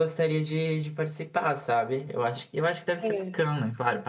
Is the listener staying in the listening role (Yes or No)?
Yes